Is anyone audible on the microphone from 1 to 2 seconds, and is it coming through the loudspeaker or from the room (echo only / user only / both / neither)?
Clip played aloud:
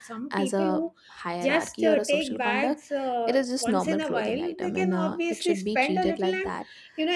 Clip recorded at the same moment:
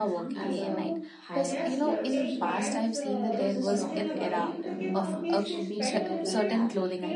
both